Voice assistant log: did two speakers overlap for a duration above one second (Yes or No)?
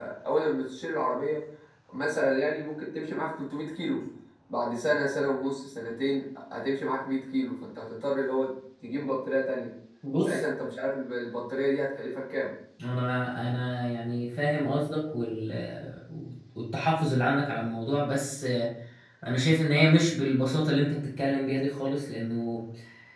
No